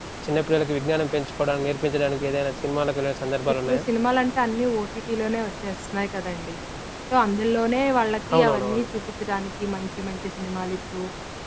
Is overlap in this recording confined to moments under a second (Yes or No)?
Yes